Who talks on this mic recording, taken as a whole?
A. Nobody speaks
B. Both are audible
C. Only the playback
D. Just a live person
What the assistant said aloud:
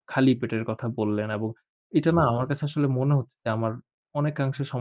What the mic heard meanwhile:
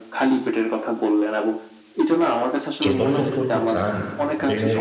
B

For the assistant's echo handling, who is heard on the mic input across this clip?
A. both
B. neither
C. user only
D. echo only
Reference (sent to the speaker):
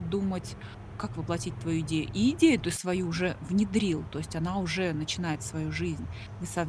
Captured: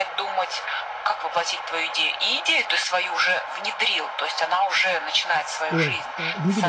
A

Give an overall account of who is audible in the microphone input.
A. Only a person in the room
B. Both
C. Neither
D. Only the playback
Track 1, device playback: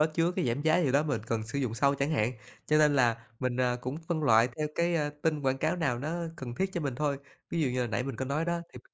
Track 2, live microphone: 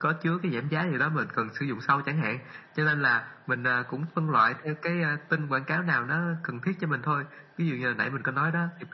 D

